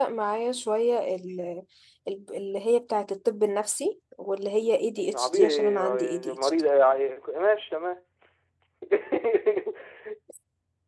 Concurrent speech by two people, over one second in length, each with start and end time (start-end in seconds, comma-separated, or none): 5.0-6.5